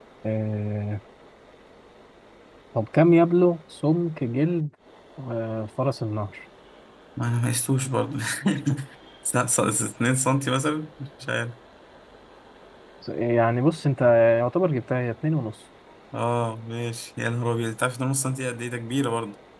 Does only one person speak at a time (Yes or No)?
Yes